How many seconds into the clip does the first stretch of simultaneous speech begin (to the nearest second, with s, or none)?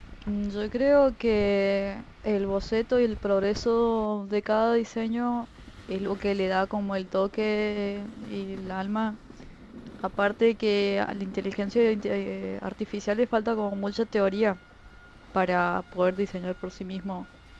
none